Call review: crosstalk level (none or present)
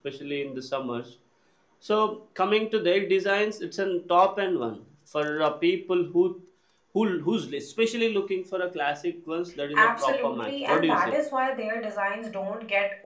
present